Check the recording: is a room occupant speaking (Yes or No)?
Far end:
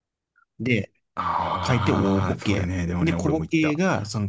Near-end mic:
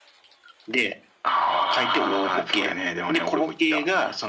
No